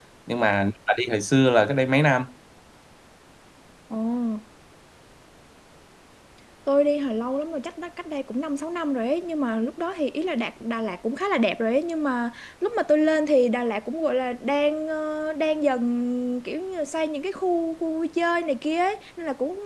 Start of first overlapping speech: none

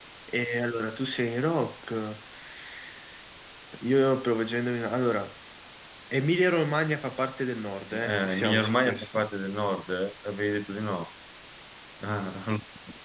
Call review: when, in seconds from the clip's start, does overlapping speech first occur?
7.9 s

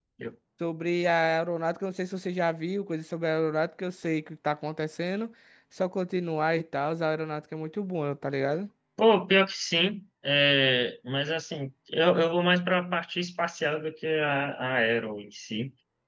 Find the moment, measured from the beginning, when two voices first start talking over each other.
none

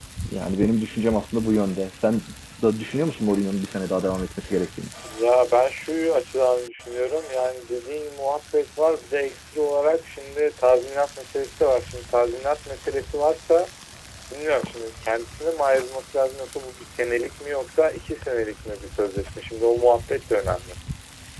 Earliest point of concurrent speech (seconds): none

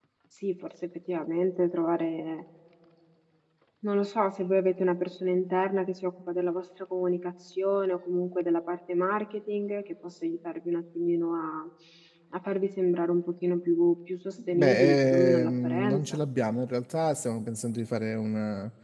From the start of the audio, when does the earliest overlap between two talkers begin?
14.4 s

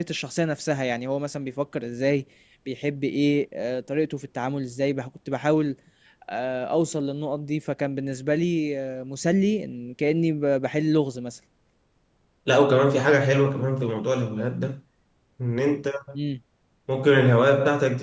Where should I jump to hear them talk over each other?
none

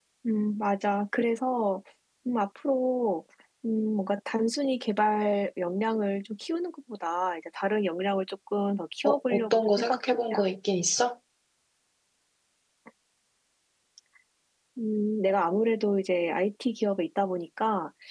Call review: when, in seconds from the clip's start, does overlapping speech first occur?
9.0 s

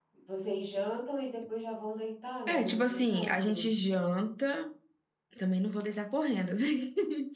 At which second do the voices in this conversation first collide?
2.5 s

